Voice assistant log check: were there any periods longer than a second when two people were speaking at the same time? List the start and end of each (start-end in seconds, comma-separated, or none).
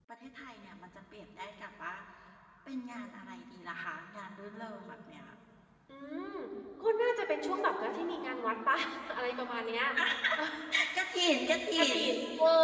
none